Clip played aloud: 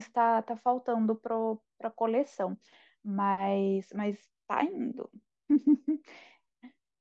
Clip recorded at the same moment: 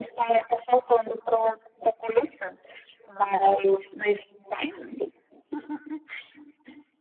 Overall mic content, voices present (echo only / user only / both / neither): echo only